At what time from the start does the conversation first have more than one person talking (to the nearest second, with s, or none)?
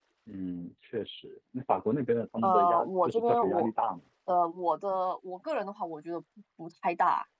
2 s